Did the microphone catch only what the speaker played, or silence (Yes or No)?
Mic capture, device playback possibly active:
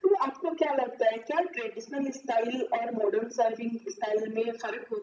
Yes